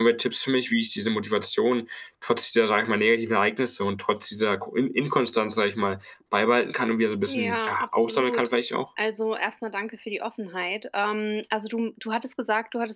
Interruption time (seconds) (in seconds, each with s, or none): 7.3 s